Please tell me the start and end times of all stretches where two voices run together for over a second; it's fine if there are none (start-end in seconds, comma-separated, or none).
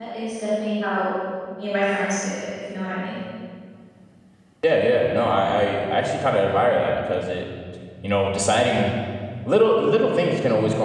none